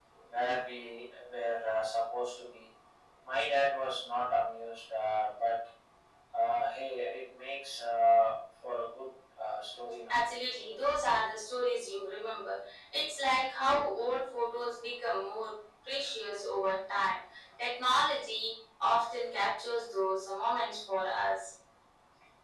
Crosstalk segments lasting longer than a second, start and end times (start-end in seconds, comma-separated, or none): none